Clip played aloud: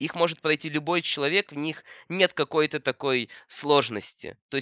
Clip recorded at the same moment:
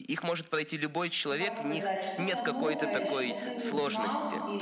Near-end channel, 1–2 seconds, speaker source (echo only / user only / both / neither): both